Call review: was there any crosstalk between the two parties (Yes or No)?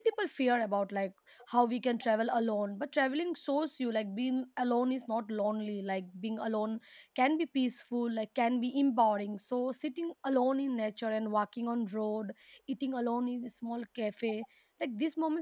No